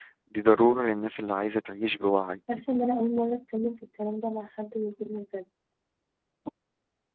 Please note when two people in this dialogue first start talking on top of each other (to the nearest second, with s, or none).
none